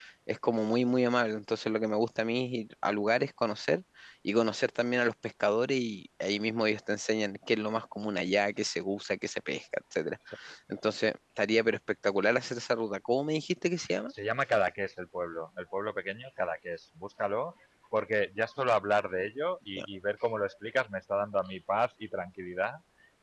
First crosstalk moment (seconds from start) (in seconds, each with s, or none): none